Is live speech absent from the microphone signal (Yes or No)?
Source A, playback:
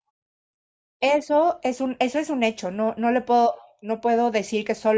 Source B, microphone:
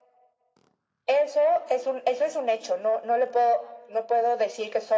Yes